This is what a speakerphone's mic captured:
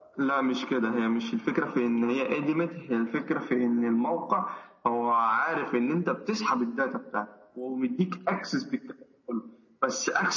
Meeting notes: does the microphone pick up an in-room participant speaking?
No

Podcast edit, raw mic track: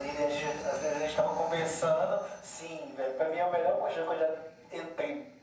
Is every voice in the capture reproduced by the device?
Yes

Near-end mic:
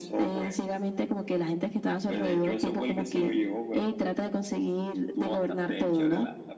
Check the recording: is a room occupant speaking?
No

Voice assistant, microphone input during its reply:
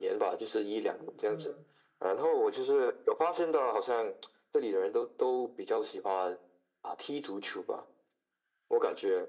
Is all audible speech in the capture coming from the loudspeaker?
No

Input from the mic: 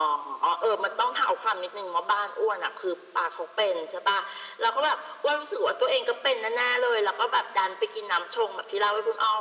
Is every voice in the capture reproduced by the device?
Yes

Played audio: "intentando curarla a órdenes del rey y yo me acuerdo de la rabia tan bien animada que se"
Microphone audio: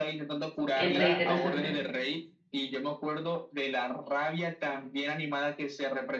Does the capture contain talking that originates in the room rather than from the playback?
Yes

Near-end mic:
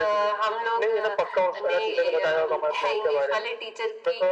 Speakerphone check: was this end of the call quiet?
Yes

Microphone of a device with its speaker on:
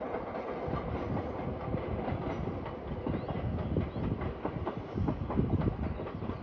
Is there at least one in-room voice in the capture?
No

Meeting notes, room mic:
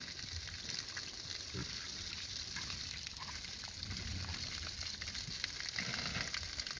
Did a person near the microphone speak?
No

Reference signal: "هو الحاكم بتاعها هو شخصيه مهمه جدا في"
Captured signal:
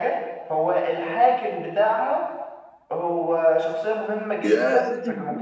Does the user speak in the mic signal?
Yes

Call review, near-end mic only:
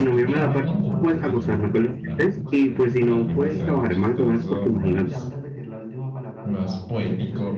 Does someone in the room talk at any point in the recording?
Yes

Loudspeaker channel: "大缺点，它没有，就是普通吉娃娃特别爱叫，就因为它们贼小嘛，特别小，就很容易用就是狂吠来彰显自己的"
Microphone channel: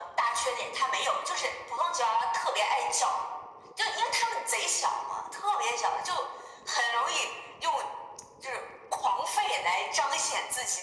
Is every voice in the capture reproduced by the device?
Yes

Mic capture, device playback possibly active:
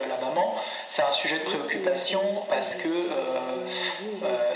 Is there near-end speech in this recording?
Yes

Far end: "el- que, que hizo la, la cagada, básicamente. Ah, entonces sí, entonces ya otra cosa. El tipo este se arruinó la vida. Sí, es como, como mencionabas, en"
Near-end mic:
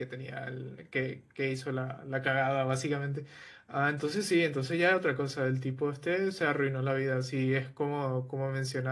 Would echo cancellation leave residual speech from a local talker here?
No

